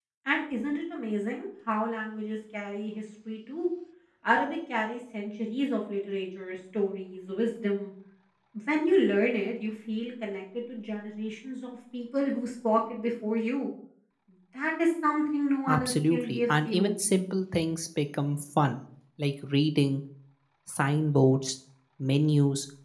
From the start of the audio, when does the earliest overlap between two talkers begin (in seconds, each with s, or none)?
15.7 s